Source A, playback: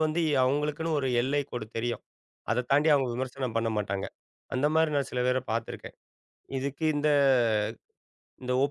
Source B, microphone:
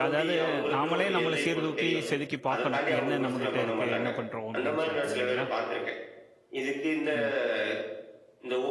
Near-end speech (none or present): present